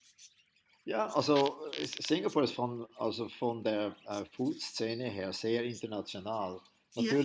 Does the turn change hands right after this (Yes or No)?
No